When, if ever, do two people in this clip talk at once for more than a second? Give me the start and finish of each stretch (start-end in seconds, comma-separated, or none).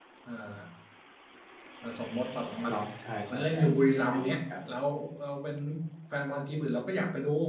3.3-4.6